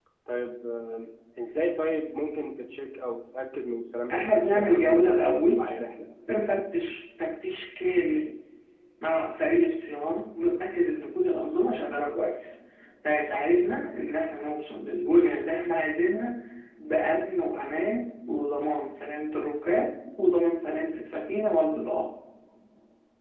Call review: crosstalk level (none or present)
present